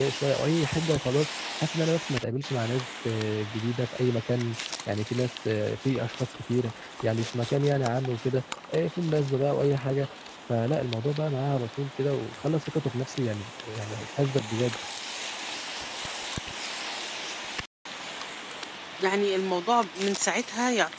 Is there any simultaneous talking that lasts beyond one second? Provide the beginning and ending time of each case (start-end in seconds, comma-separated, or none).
none